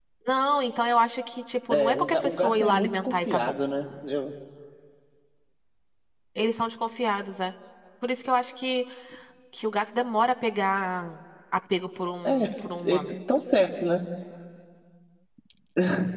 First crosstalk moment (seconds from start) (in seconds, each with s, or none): 1.7 s